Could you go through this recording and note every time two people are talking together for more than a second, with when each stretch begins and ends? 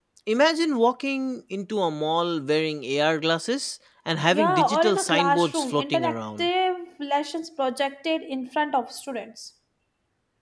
4.3-6.5

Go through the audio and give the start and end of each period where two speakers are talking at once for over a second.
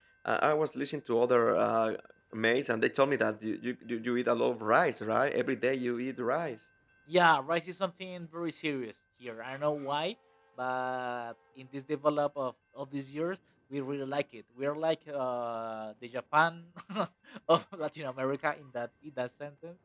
none

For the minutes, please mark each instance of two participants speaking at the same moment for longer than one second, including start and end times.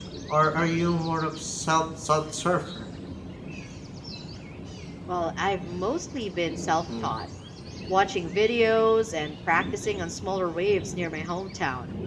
none

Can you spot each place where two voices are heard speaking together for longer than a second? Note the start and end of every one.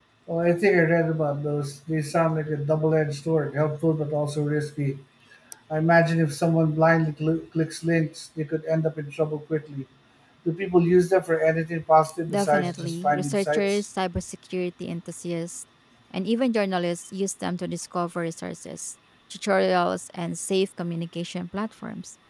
12.3-13.8

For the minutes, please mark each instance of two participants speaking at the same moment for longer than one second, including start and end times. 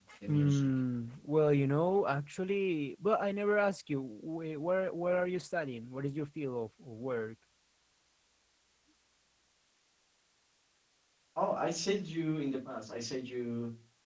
none

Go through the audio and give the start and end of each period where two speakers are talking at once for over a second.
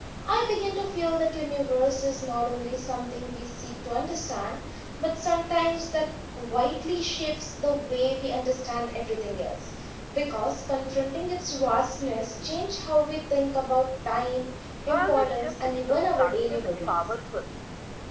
14.9-17.0

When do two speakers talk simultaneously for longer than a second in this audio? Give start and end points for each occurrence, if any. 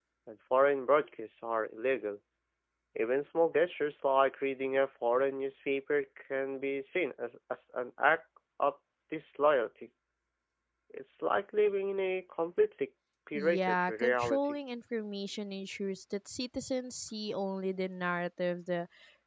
13.3-14.6

